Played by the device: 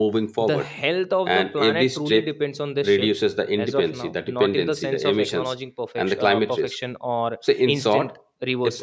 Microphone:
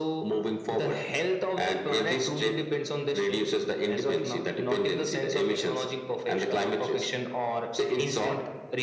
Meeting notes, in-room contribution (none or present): none